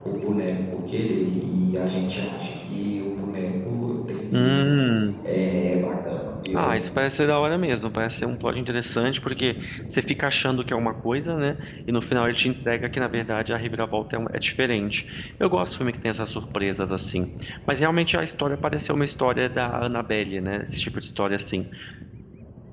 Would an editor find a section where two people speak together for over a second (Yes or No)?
No